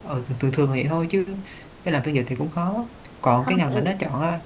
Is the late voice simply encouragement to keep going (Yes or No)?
Yes